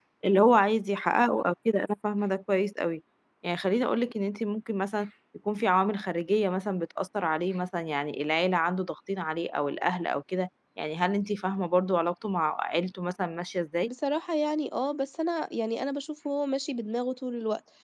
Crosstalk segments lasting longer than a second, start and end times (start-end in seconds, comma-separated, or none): none